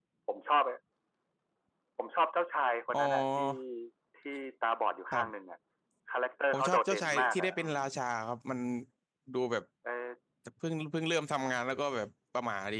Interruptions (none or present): present